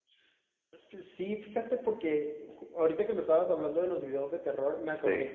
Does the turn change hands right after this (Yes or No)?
No